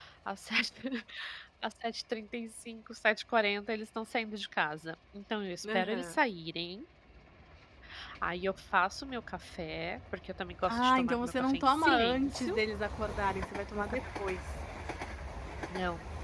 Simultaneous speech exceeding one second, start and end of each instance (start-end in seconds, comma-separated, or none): 10.7-12.6